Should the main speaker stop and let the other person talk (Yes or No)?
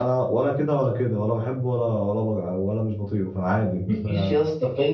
Yes